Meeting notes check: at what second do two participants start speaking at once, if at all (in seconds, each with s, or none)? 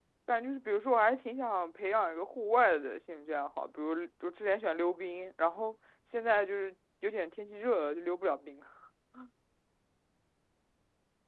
none